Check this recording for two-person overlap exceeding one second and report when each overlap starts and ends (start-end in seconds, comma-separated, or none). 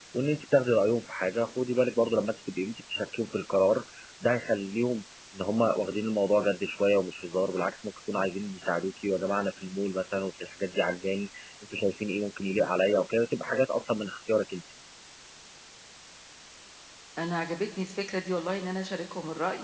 none